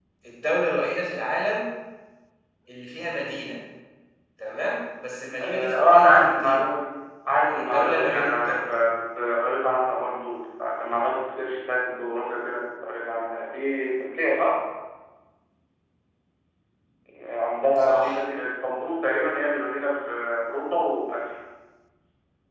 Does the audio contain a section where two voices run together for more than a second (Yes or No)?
Yes